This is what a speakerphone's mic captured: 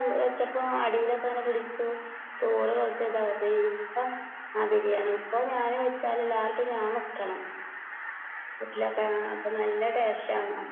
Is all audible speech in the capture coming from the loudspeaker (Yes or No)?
Yes